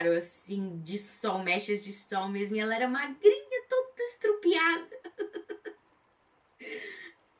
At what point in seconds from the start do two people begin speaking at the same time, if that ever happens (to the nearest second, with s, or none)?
none